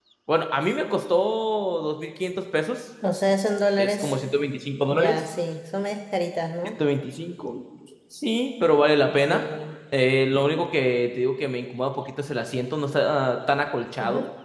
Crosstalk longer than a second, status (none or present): none